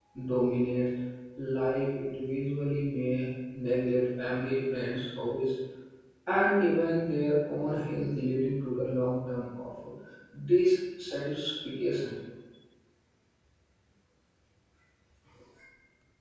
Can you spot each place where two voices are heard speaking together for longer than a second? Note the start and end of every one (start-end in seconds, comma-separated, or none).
none